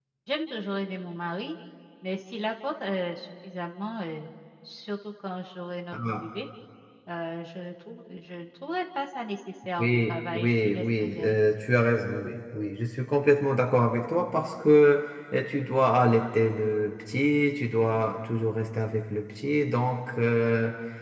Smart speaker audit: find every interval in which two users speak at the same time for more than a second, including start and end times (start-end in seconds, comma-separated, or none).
9.8-11.3